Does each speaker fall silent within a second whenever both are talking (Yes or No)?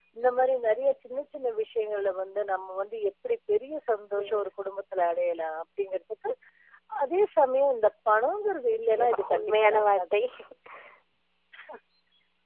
No